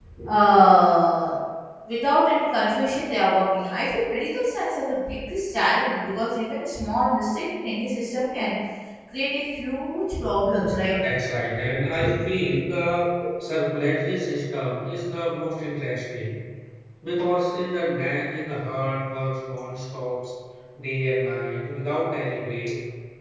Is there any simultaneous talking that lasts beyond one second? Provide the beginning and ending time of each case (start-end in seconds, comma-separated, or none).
none